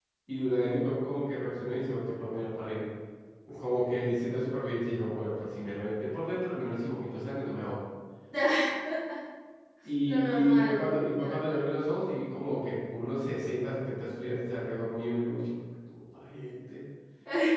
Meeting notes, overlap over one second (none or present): present